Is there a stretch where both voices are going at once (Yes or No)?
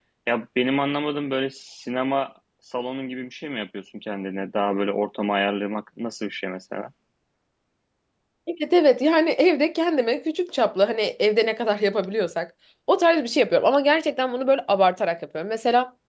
No